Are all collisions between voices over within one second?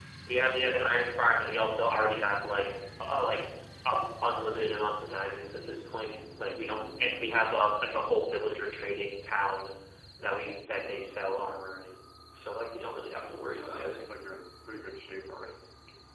Yes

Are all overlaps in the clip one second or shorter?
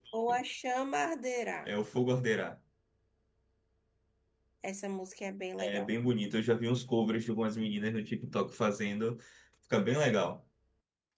Yes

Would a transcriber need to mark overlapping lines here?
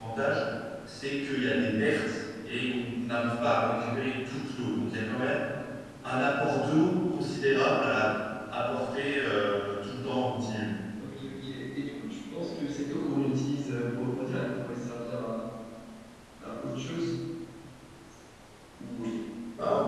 No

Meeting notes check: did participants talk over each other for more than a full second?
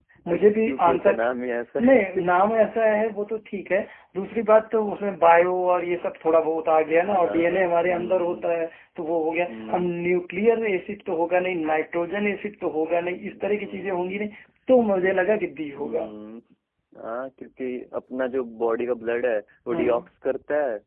Yes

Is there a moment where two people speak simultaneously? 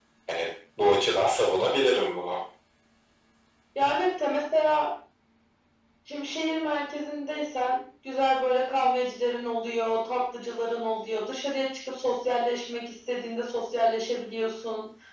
No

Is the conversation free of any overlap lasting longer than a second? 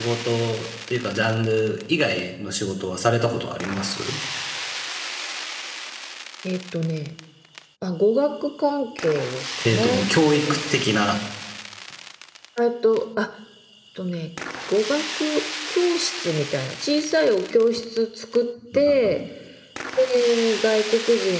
Yes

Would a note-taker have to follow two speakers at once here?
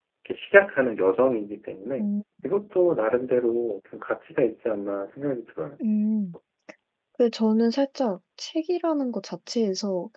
No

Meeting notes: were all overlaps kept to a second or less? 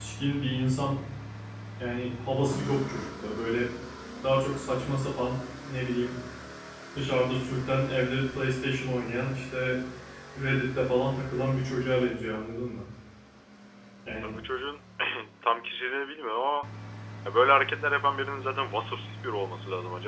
Yes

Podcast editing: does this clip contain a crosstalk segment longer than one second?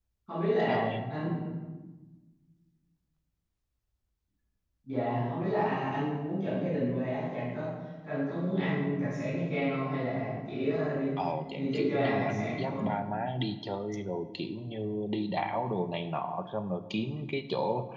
Yes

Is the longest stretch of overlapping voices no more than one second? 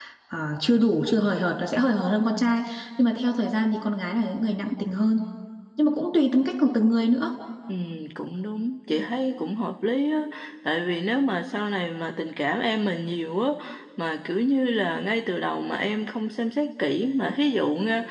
Yes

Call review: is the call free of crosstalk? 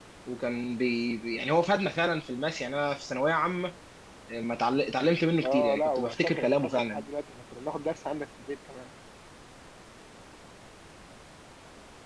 No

